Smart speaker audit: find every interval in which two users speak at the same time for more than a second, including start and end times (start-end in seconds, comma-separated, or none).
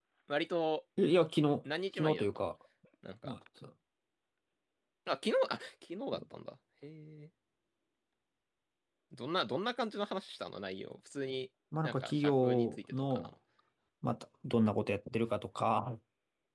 11.8-13.3